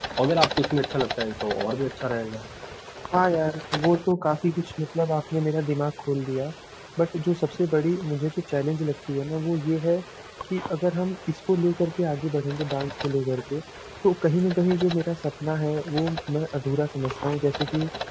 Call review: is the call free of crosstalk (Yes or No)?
Yes